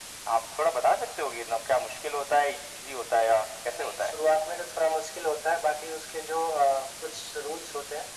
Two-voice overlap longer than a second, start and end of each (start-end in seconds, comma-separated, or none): none